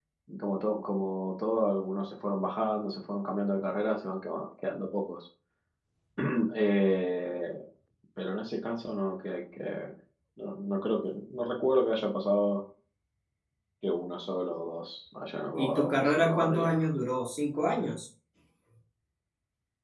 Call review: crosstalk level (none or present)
present